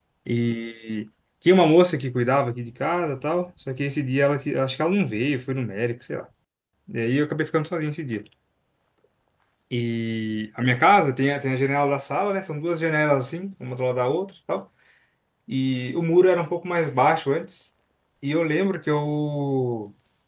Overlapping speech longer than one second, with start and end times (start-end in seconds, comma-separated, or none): none